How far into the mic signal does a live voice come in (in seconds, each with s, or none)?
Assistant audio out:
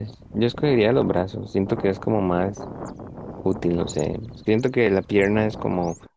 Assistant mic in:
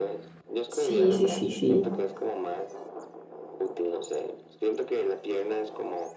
0.7 s